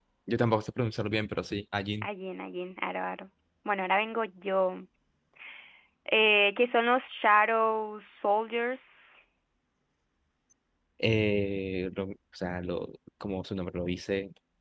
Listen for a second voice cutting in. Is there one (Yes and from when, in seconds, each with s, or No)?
No